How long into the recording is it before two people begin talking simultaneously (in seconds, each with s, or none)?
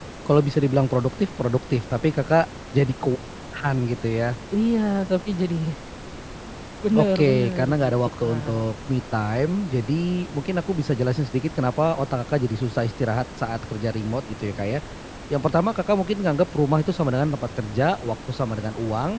6.9 s